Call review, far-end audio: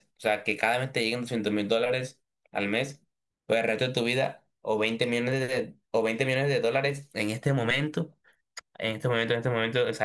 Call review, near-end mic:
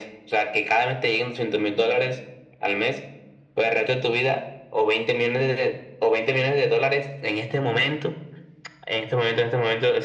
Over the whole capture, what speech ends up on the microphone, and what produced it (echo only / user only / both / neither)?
echo only